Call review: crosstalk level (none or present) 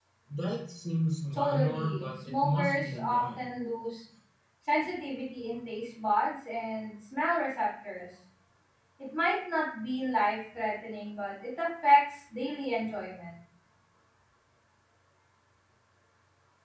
present